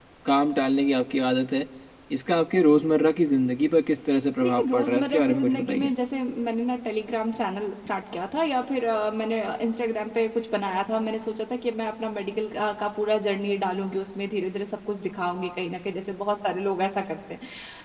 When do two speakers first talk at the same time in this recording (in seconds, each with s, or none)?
4.4 s